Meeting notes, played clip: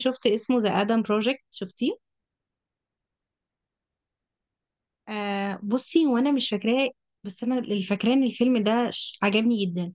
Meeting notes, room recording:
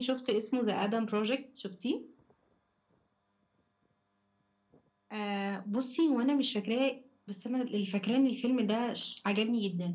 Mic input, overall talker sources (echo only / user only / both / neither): echo only